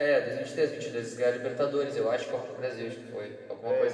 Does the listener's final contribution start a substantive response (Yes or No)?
Yes